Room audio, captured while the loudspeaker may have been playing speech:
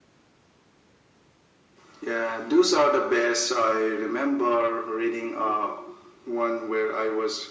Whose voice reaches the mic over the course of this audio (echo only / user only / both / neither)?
echo only